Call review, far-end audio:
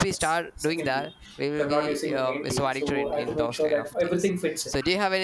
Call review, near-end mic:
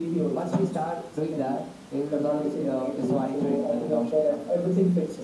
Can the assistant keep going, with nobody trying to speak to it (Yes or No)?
Yes